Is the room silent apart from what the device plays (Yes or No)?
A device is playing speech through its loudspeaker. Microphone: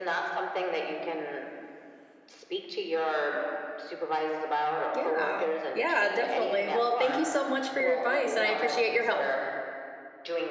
No